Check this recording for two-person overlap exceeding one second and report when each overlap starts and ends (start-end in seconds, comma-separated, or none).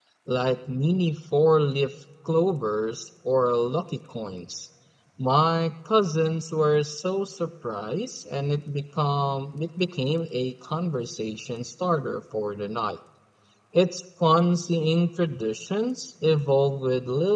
none